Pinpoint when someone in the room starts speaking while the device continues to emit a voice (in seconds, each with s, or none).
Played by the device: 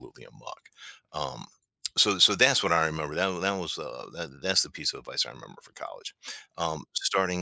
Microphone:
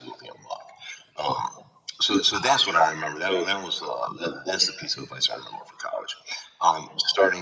none